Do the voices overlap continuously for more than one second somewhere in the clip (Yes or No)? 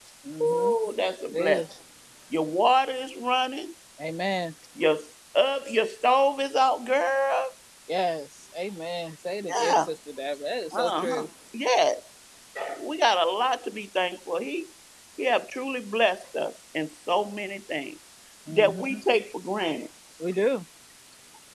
No